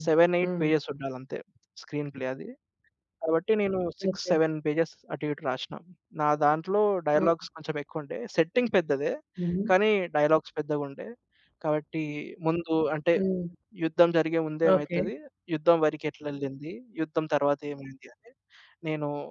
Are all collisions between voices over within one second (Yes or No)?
Yes